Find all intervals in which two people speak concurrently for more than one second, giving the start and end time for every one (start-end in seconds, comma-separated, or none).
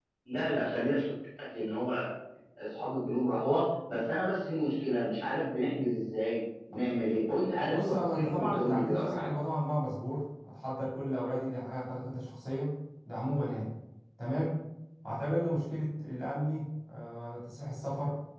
7.7-9.3